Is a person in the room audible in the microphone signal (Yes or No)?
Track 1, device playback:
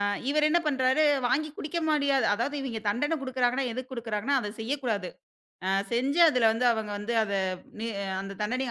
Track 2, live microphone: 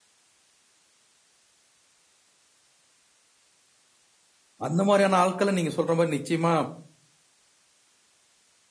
Yes